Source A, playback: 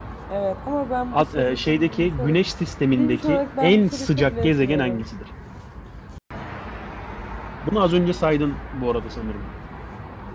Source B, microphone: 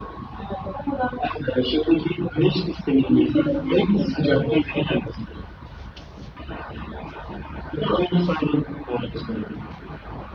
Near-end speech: none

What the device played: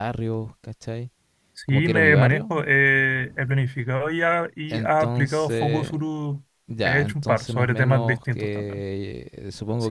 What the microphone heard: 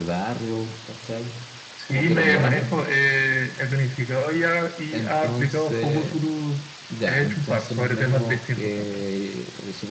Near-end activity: none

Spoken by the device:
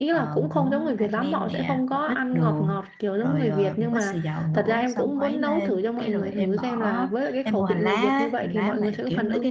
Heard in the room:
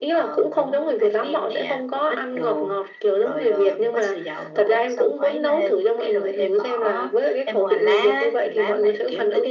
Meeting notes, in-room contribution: none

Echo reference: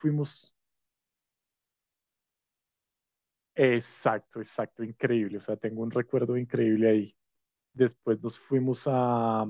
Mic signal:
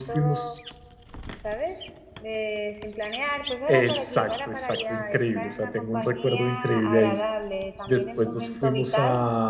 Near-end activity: present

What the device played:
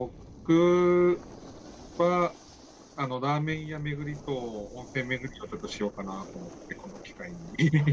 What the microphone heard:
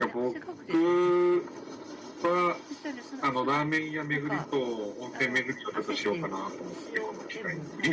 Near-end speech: present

